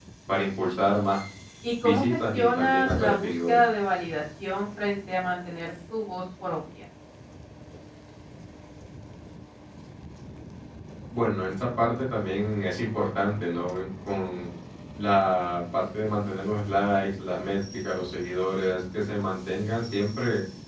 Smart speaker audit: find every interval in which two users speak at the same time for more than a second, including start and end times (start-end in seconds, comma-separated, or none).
1.8-3.6